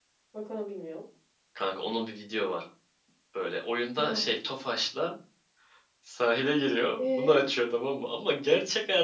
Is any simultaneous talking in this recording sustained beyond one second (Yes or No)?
No